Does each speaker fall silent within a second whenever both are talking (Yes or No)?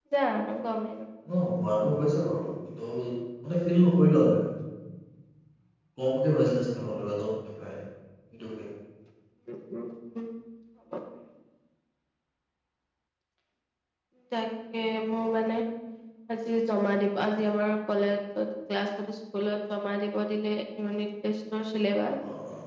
Yes